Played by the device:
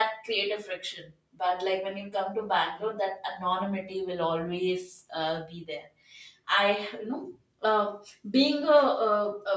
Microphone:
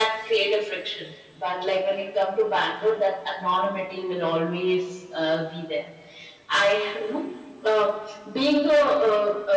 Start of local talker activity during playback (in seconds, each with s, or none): none